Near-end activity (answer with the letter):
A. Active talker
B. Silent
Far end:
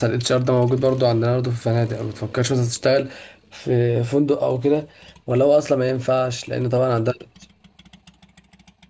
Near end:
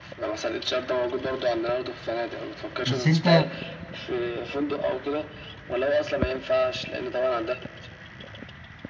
A